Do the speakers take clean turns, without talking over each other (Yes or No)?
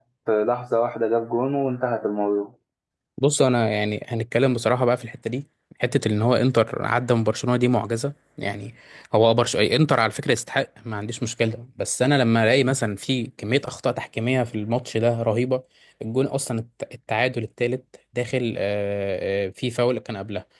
Yes